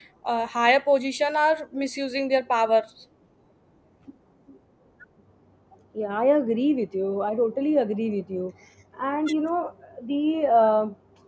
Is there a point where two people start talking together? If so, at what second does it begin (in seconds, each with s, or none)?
none